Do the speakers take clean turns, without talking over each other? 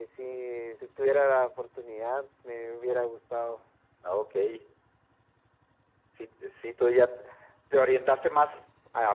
Yes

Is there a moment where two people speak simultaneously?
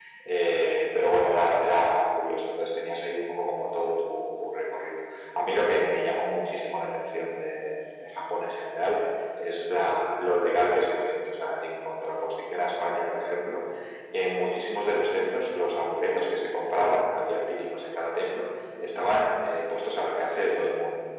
No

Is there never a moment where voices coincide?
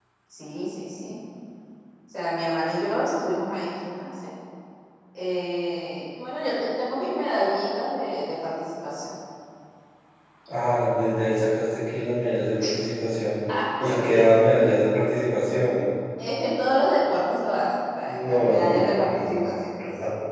No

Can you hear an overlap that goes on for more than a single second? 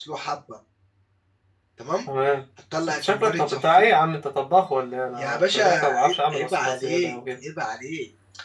Yes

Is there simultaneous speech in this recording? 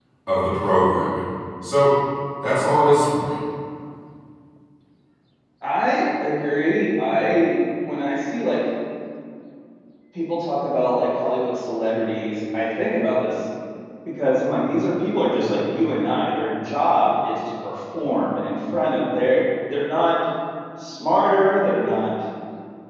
No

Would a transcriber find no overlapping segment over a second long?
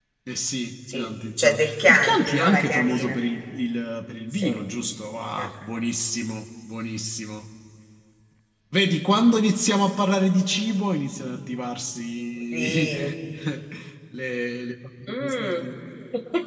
No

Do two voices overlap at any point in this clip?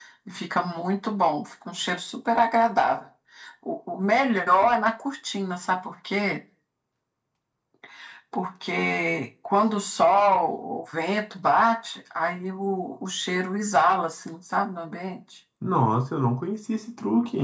No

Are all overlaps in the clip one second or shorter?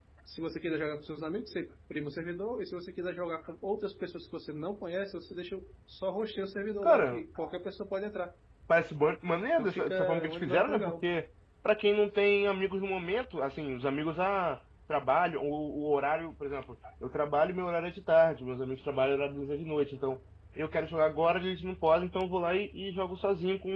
No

